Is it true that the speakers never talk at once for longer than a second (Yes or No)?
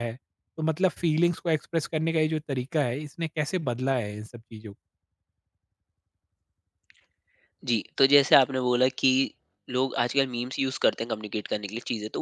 Yes